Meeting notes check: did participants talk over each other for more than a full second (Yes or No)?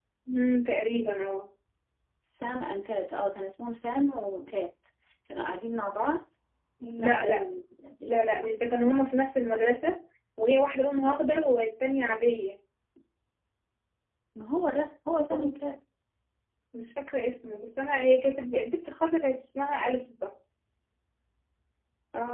No